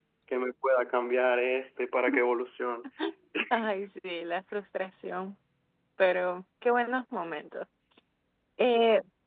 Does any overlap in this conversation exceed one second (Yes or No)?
No